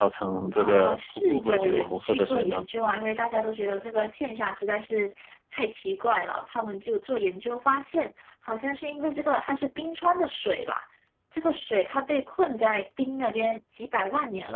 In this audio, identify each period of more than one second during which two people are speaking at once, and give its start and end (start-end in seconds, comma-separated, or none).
0.6-2.6